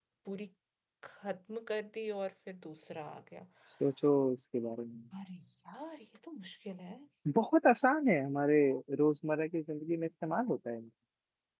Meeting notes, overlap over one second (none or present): none